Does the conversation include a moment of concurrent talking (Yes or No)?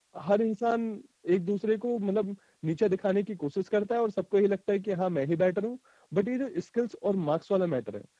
No